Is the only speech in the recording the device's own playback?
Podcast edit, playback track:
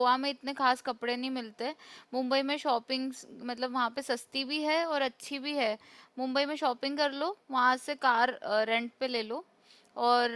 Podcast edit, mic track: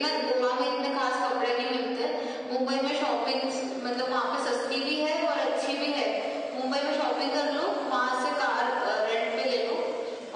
Yes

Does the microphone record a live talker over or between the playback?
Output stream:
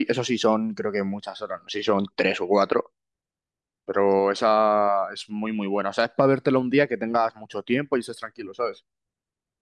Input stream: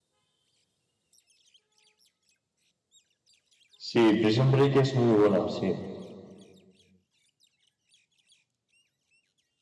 Yes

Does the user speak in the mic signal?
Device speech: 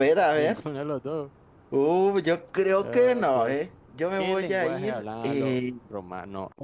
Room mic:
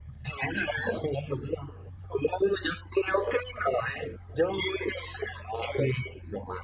No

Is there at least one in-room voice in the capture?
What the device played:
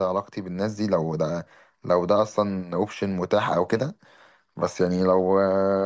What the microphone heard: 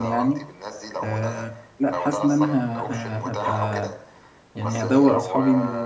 Yes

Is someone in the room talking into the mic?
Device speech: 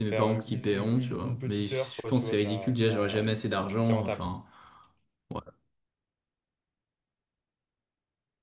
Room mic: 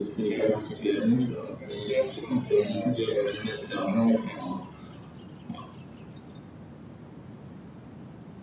No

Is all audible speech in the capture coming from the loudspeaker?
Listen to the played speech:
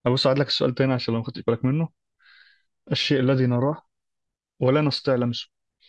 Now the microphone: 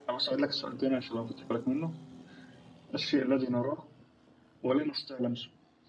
Yes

